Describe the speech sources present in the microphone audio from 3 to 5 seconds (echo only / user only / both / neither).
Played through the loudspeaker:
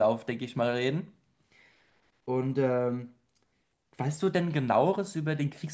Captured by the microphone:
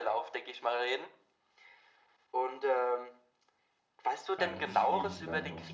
both